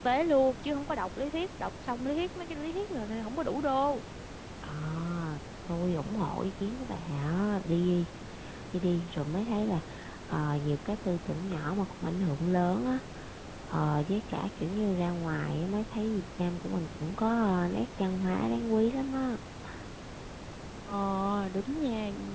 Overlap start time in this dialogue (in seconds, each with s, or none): none